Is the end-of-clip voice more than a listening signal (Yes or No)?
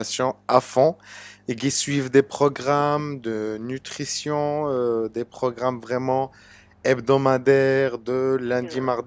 No